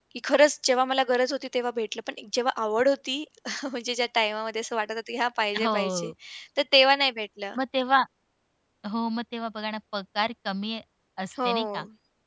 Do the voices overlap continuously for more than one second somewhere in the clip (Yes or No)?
No